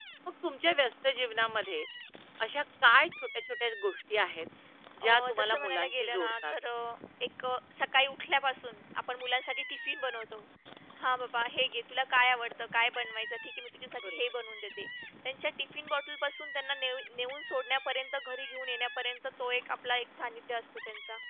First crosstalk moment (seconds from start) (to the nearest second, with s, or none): 5 s